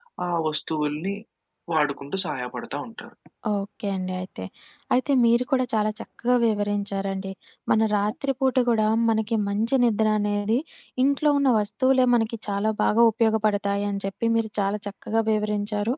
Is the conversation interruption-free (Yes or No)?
Yes